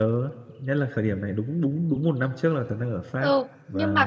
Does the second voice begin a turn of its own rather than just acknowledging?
Yes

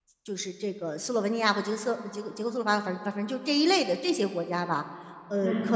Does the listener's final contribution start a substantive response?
No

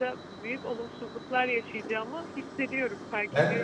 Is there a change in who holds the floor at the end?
Yes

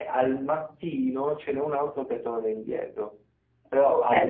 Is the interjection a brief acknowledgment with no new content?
No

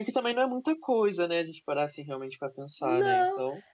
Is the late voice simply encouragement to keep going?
No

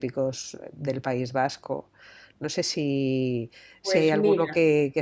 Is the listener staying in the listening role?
Yes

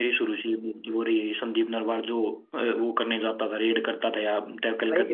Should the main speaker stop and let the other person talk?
Yes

